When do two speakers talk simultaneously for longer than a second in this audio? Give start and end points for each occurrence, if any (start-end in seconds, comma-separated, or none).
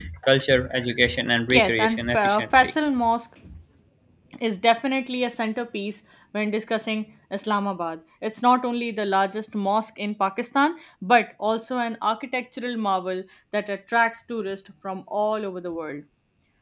1.5-2.7